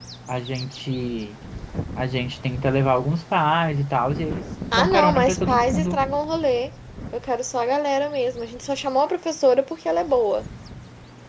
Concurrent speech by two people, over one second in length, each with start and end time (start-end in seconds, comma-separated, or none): 4.7-6.0